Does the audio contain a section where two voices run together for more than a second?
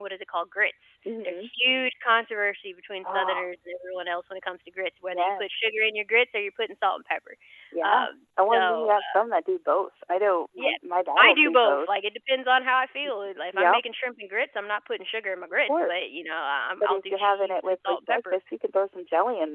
Yes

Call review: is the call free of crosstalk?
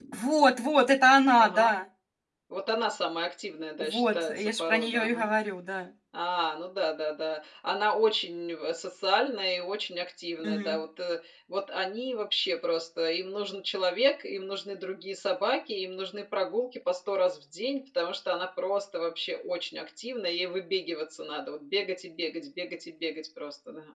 No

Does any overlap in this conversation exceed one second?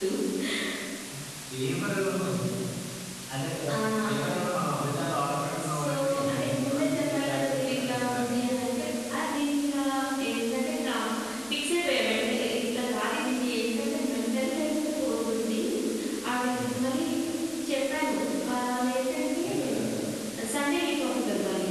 Yes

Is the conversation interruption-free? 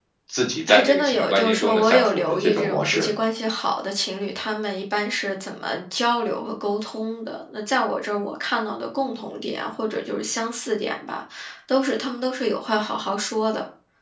No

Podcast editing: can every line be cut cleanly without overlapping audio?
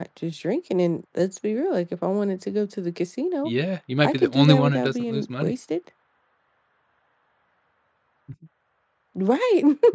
No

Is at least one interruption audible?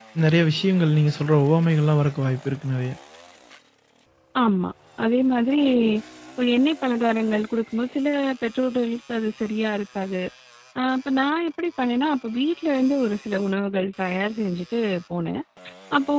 No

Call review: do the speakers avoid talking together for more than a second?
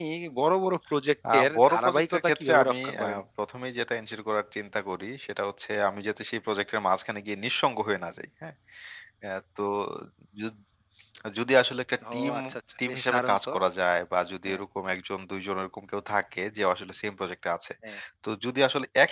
No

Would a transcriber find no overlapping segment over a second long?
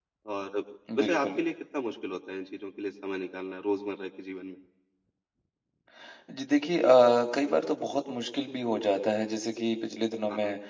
Yes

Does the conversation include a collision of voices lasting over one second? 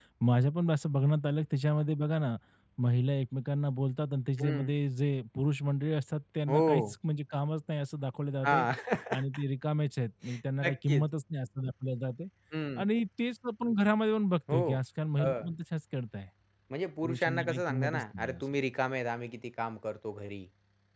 Yes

